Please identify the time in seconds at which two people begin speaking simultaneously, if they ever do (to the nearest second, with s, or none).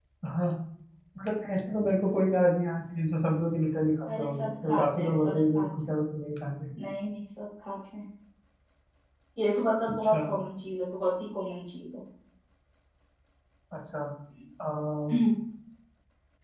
4 s